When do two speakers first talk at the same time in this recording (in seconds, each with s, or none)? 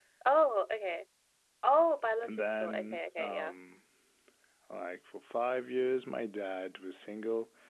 2.2 s